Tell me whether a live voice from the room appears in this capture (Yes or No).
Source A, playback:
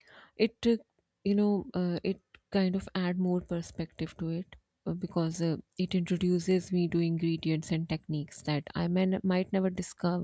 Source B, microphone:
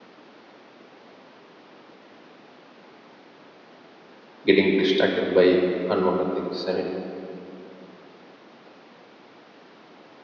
Yes